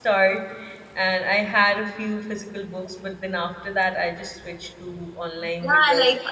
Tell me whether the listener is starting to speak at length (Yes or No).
Yes